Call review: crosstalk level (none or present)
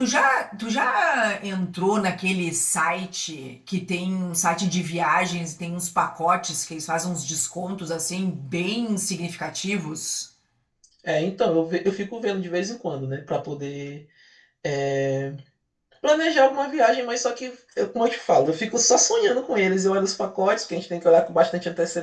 none